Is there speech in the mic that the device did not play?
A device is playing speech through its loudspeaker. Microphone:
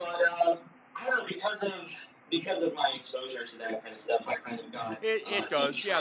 Yes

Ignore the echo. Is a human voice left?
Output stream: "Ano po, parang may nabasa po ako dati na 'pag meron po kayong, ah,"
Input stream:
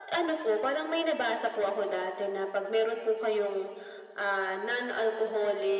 No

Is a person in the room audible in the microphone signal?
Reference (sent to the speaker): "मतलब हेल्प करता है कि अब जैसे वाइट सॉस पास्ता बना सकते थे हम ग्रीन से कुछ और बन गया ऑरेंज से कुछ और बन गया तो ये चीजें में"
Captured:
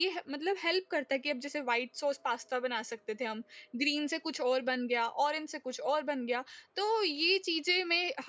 No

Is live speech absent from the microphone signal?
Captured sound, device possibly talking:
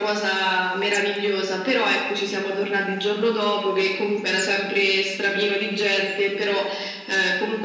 Yes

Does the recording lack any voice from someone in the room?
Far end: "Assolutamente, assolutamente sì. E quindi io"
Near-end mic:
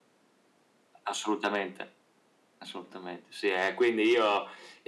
Yes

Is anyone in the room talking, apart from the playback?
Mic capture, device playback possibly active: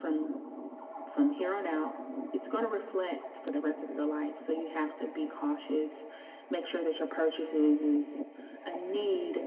No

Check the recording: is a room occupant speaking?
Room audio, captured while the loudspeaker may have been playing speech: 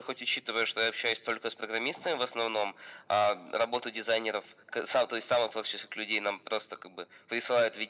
No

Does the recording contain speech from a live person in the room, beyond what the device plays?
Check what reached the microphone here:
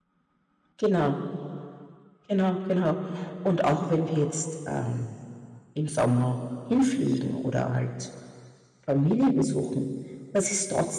Yes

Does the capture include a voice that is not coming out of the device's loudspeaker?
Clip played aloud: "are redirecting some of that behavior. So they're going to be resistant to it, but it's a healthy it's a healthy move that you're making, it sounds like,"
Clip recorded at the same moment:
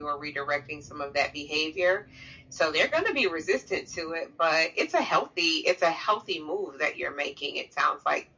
No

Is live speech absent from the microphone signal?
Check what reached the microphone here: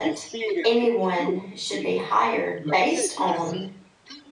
No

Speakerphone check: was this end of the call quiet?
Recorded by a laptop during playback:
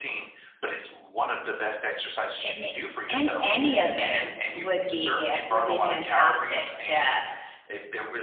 No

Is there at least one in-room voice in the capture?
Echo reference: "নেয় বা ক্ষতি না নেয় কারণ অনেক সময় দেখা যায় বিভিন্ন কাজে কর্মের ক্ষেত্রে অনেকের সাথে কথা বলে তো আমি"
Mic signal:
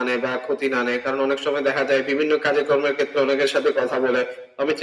No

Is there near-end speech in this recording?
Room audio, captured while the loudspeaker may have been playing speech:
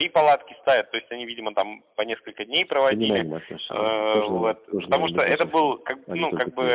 Yes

